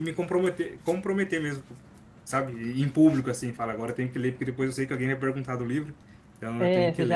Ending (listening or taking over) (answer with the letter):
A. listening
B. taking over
B